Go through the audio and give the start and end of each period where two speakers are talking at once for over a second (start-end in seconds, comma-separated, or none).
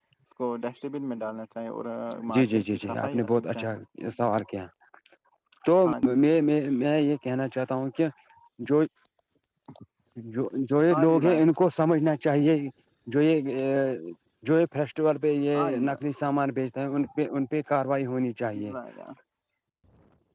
2.3-3.7